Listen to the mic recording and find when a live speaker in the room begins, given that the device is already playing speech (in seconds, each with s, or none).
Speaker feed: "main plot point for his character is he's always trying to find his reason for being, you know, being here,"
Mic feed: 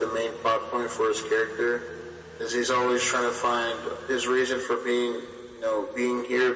none